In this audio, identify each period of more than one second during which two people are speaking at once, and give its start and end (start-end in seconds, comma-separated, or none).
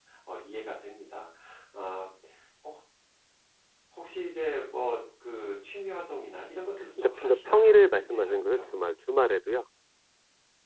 7.0-8.9